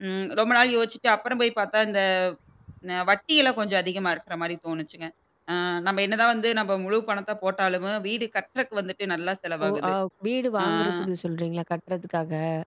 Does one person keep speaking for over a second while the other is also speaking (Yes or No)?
No